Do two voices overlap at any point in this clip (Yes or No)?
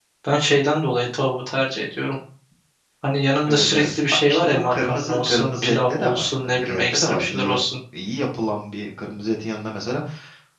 Yes